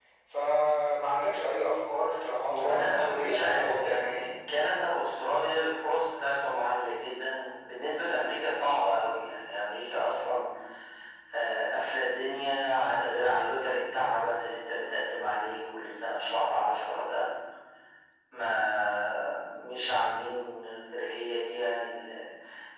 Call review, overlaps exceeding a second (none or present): present